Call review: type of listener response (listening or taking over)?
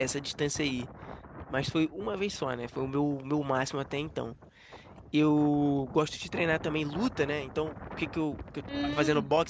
listening